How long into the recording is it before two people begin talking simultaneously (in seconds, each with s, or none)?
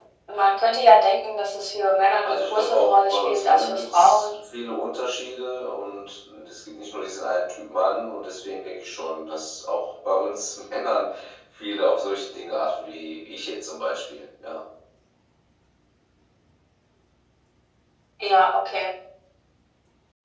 2.2 s